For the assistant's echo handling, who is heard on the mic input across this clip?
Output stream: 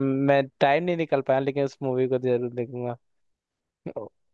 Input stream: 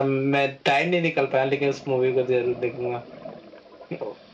echo only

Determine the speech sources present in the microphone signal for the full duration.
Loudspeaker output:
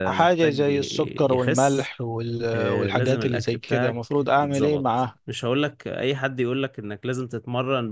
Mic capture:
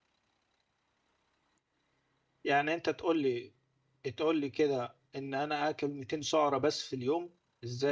user only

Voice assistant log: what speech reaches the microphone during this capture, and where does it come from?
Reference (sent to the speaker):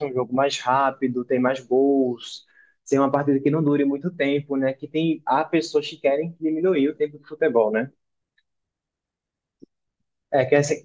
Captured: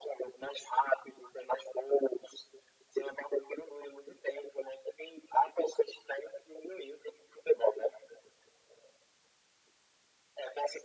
echo only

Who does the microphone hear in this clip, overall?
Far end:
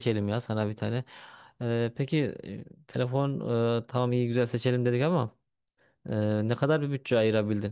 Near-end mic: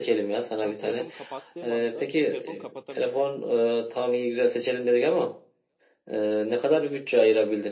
both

